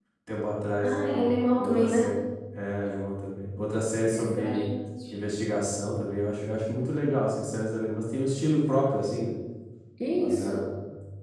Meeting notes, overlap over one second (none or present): present